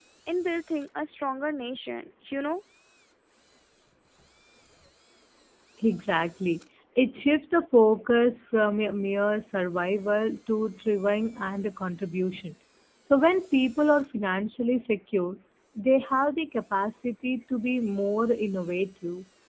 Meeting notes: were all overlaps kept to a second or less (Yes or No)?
Yes